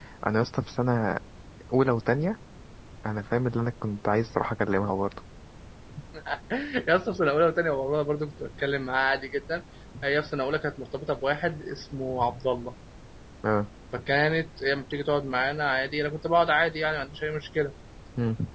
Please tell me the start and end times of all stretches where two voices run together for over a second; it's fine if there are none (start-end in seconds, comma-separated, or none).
none